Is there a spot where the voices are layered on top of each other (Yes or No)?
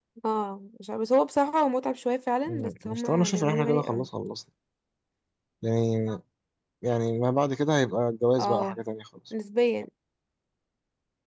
Yes